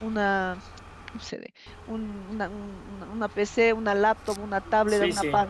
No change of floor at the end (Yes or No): Yes